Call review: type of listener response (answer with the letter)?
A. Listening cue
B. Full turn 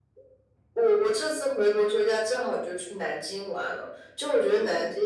A